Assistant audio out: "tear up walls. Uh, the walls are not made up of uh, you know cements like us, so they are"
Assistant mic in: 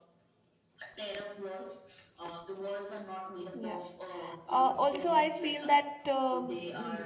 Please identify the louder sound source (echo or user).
user